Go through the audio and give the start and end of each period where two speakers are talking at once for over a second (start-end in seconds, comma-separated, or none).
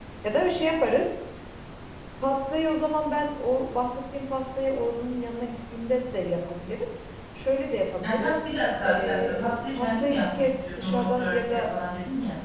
8.8-11.7